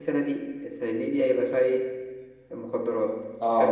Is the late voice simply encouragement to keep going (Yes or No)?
Yes